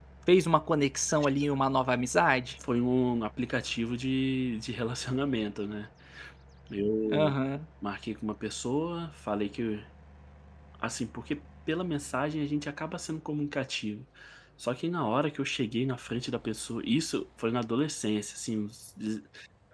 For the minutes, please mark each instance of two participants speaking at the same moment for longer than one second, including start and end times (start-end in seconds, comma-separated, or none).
none